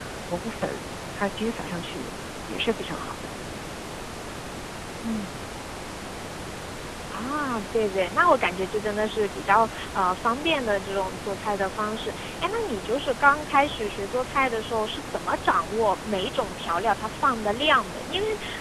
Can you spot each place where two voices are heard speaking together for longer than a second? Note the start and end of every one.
none

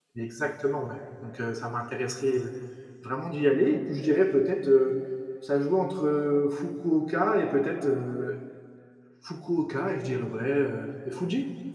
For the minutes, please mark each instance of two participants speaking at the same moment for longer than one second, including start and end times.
none

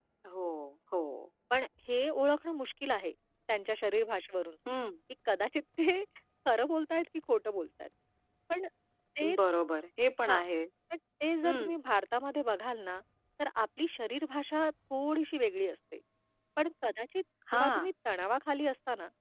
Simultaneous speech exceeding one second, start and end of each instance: none

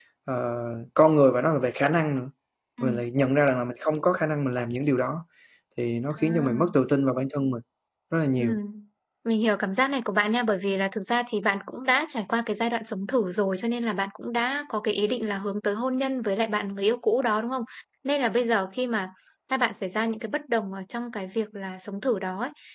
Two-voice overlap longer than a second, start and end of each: none

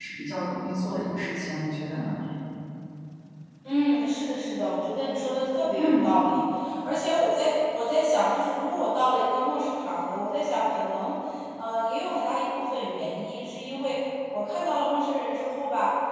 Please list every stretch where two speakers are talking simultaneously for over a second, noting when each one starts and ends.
none

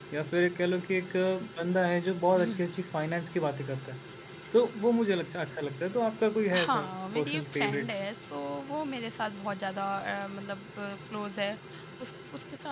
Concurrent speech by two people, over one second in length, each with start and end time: 6.5-7.9

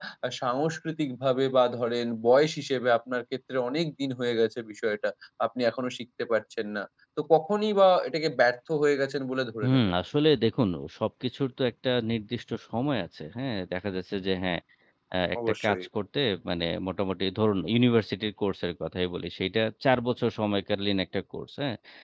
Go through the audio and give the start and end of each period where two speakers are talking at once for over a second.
none

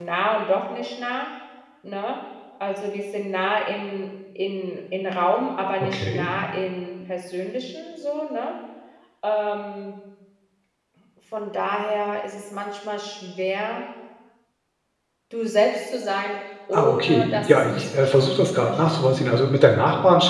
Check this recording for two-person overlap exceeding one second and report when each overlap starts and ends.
16.7-19.3

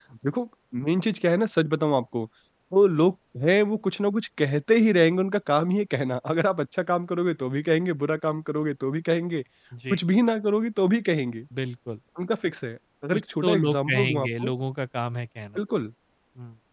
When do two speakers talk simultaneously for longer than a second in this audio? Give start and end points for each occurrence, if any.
13.1-14.5

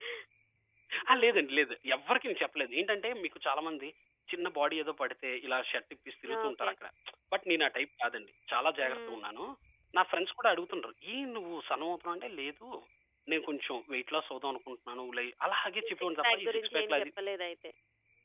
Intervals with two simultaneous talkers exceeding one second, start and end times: 15.8-17.1

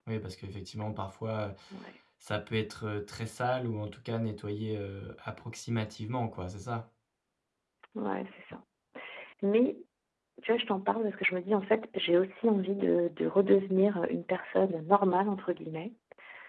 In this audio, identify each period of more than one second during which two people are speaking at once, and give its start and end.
none

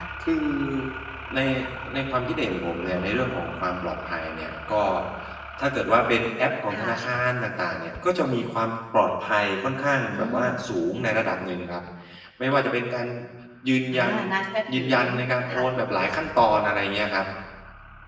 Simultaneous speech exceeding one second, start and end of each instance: none

